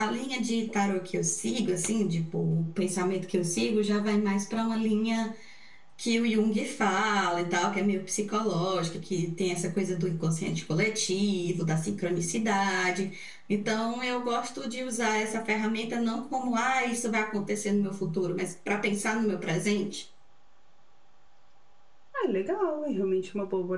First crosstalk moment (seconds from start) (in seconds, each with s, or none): none